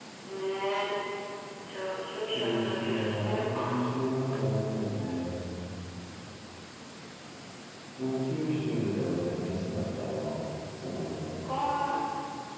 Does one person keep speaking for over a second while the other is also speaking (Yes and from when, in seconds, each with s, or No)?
Yes, from 2.3 s